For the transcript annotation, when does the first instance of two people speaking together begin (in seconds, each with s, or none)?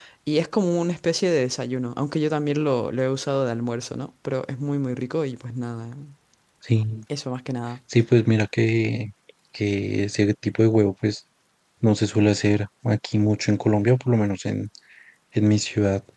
none